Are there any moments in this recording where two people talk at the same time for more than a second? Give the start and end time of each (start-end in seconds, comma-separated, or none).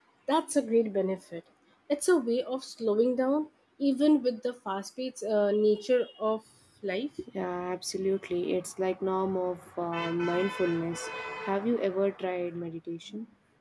none